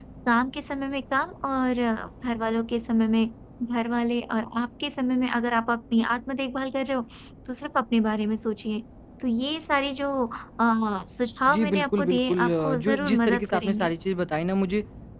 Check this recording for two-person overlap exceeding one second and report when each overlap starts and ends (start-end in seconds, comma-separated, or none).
11.5-13.9